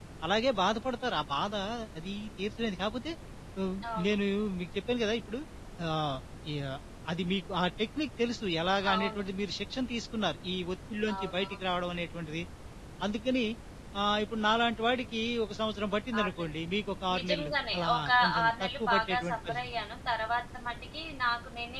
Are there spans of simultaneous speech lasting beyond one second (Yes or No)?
Yes